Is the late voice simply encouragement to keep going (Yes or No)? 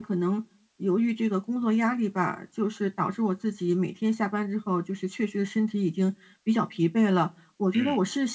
Yes